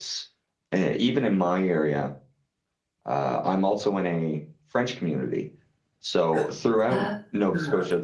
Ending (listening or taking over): listening